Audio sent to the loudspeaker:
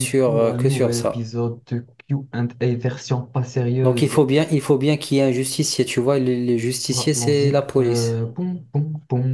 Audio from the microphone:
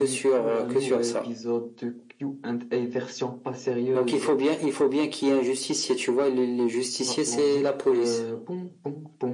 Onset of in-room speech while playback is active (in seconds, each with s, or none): none